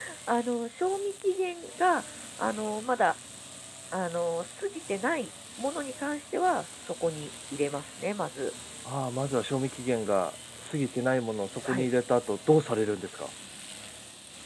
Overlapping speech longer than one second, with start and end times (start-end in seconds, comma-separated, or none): none